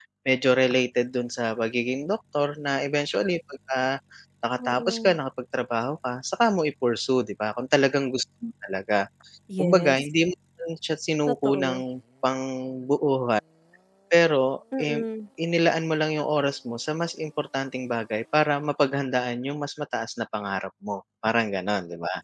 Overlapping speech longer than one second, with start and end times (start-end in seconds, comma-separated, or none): none